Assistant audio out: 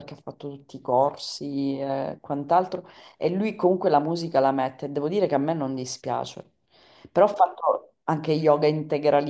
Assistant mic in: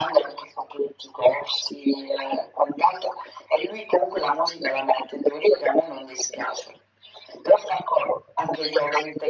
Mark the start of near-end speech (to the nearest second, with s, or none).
none